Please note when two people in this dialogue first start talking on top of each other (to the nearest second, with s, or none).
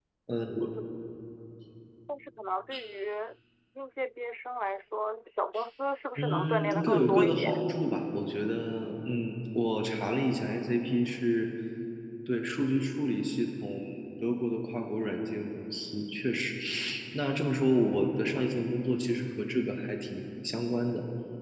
6 s